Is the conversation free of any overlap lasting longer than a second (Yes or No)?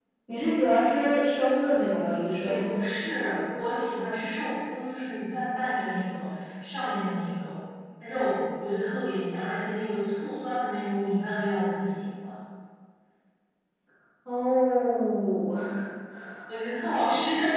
Yes